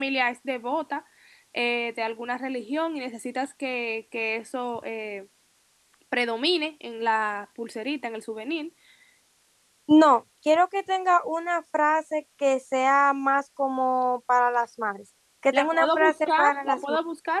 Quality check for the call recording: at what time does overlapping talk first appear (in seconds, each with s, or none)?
15.5 s